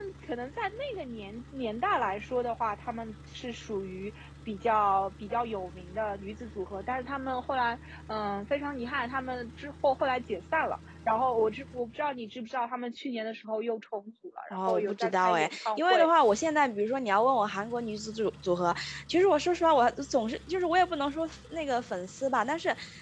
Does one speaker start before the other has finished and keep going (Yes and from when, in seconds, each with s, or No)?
Yes, from 14.5 s